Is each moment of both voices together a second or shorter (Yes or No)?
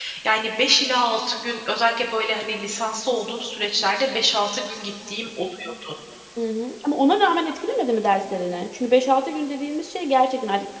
Yes